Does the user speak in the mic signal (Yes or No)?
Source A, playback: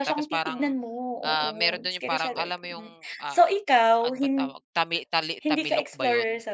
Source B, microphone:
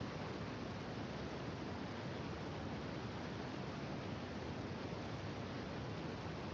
No